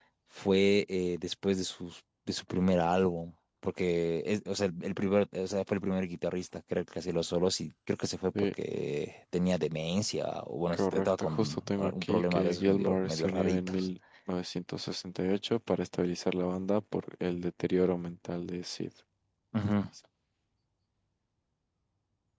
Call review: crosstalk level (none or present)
present